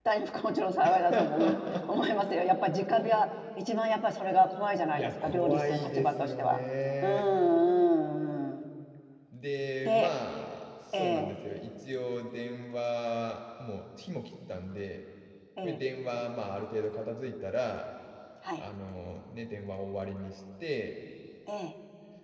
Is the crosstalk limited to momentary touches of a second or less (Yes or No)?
No